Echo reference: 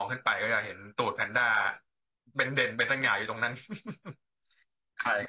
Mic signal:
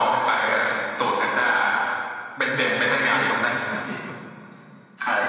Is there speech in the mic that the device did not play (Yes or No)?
Yes